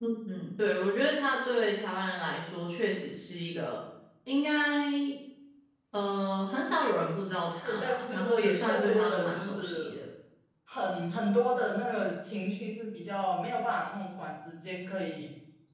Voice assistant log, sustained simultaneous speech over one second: present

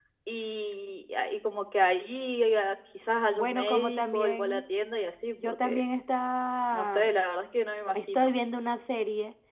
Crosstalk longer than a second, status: present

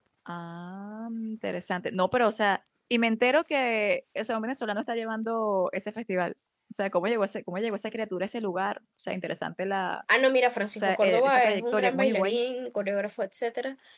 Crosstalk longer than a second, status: present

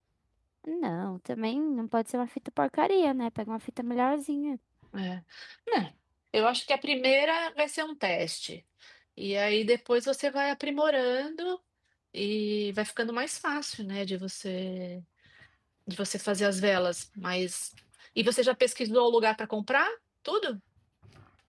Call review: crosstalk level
none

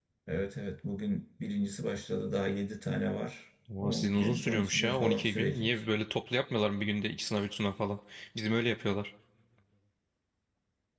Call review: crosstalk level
present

